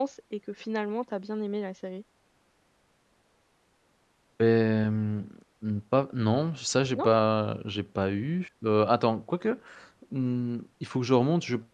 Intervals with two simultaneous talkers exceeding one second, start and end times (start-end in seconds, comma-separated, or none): none